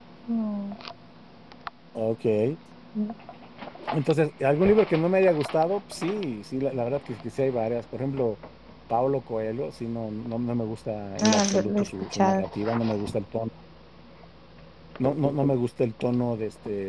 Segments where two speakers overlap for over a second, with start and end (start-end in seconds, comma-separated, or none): 11.2-12.4